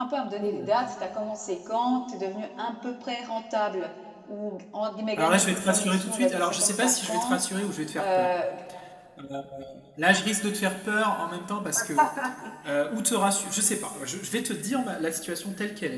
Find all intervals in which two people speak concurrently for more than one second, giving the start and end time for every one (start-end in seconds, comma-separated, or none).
5.2-7.4